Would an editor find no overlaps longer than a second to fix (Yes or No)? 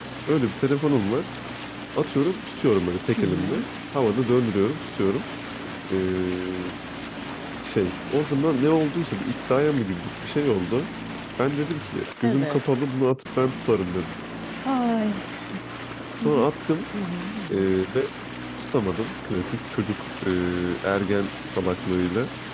Yes